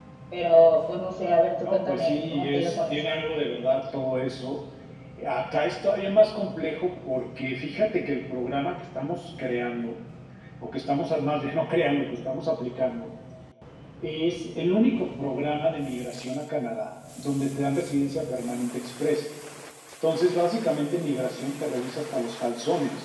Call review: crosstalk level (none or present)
present